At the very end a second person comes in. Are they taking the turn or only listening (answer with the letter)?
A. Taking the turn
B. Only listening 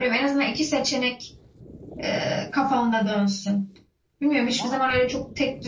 B